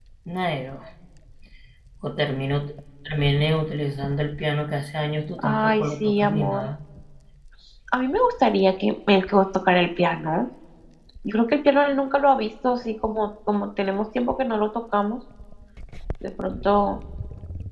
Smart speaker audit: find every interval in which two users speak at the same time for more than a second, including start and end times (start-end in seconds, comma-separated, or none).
5.4-6.7